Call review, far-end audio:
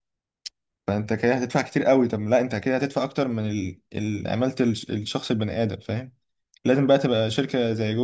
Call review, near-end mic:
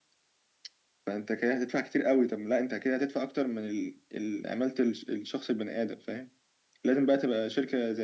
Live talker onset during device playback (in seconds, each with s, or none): none